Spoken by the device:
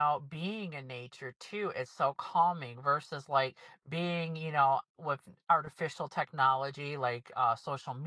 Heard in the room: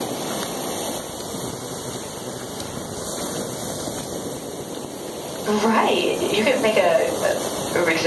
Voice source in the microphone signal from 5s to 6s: user only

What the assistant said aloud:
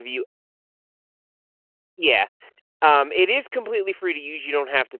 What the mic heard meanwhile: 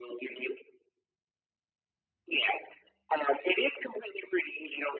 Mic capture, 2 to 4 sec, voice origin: echo only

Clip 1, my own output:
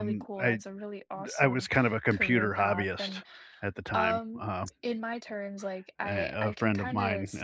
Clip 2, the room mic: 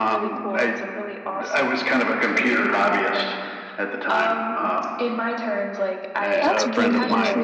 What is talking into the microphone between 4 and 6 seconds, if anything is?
echo only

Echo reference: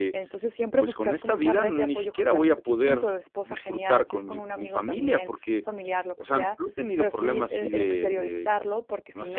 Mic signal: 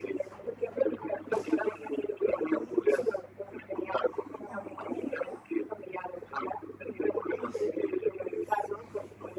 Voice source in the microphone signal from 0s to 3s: echo only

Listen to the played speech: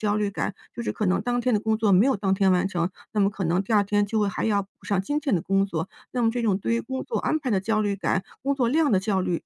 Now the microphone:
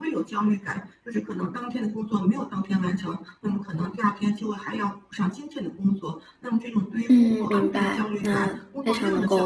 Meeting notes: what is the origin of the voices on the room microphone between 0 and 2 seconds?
echo only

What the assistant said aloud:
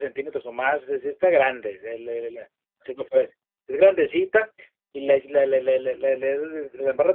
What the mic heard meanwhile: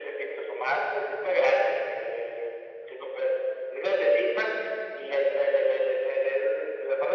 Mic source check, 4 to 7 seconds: echo only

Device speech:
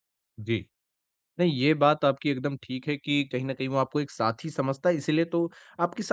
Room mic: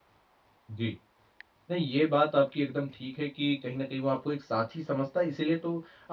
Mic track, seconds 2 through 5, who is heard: echo only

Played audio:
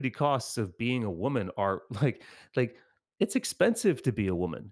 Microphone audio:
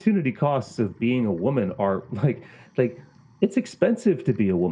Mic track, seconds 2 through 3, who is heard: echo only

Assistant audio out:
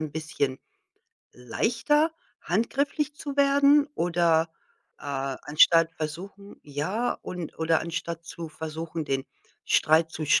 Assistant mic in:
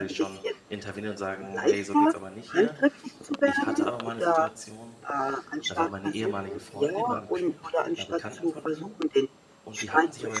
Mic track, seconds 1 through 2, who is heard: both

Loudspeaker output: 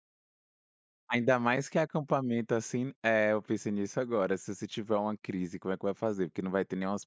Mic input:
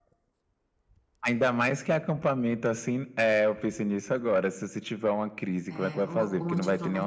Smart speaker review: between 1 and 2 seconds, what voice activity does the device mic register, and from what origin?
echo only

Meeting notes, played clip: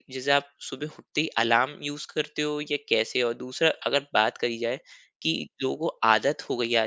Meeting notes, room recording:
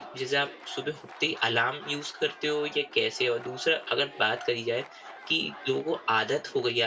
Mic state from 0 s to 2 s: echo only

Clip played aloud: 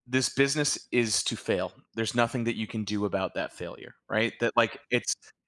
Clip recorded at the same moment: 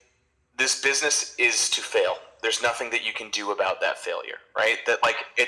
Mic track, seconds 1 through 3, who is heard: echo only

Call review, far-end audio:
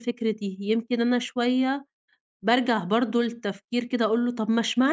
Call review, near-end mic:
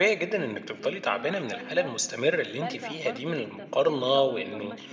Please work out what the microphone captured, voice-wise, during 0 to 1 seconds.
both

